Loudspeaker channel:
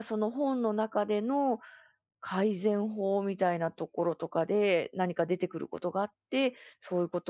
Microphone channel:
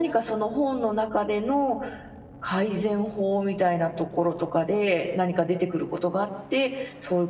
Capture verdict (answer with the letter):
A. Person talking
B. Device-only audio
B